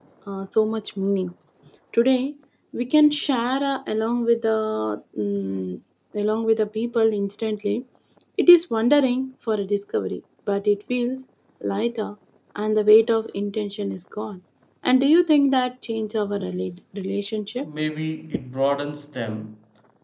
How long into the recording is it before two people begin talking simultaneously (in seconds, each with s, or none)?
none